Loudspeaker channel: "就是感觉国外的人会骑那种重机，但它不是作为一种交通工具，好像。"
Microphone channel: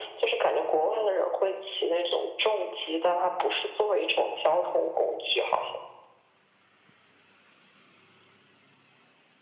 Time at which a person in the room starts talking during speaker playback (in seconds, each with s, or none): none